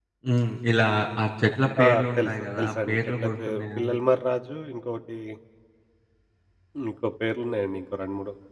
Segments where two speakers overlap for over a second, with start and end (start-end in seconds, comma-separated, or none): 1.8-4.0